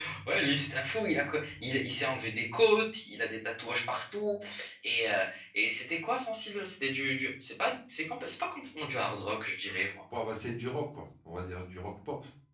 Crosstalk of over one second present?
No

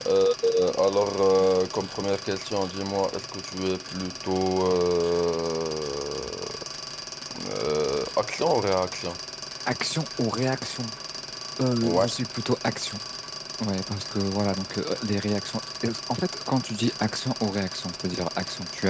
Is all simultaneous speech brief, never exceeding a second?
Yes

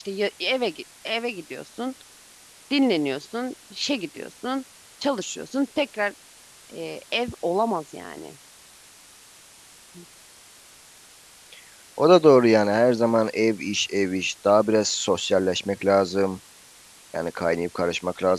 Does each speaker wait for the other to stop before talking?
Yes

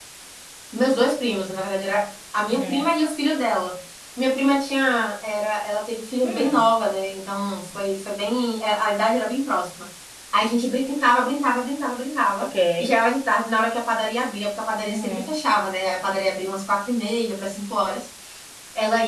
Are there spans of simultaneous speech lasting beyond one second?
No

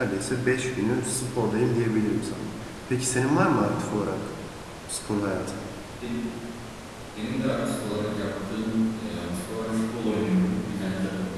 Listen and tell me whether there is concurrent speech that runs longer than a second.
No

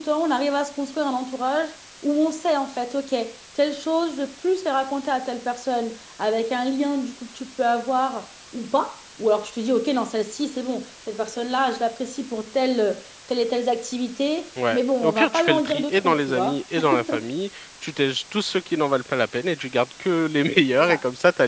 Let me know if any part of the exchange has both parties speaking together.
Yes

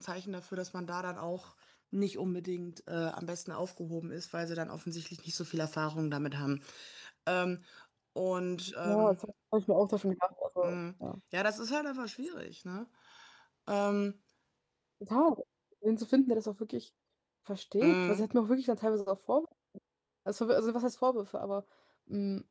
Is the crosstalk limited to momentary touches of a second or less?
Yes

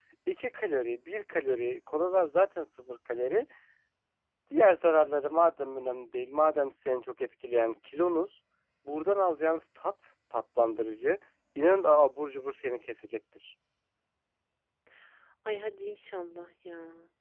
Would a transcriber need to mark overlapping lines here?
No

